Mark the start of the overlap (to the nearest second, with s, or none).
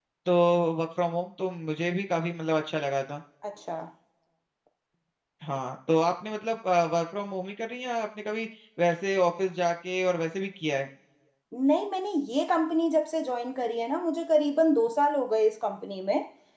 none